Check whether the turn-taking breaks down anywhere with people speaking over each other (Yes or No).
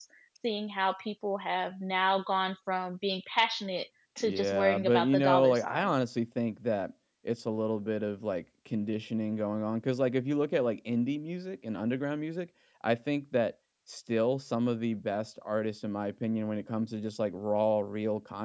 Yes